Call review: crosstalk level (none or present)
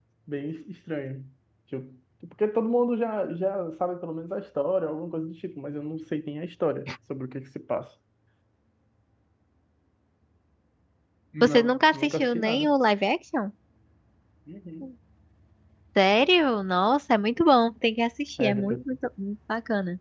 present